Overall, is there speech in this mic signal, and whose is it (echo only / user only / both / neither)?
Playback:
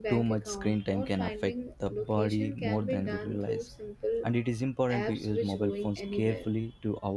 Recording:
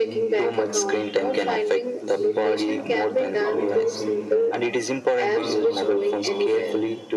both